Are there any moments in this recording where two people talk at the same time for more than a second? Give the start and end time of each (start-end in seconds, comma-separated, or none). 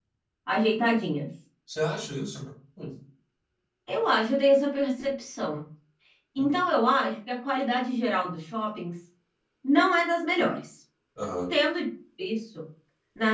none